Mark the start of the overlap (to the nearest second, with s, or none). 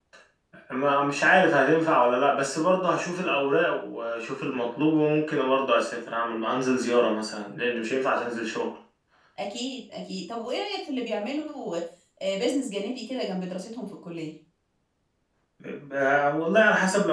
none